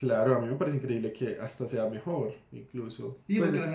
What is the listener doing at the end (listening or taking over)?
taking over